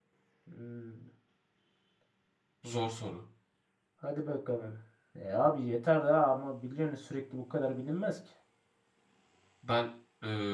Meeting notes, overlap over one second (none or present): none